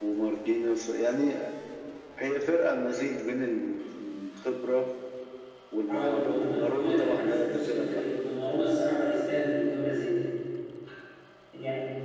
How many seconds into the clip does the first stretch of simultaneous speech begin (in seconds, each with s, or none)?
5.9 s